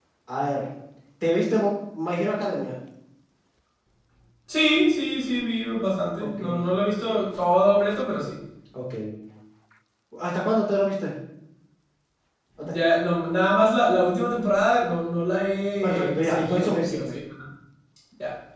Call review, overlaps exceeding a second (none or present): present